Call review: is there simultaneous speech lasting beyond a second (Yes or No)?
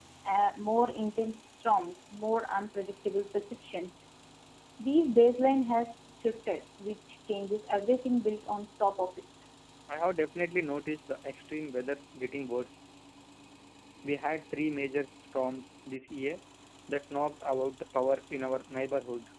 No